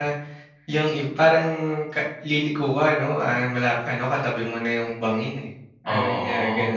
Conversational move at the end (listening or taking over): taking over